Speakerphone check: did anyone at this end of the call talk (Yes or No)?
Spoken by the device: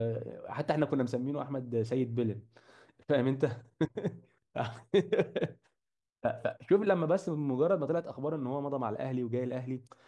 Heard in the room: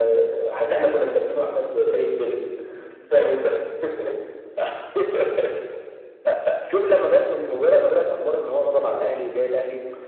No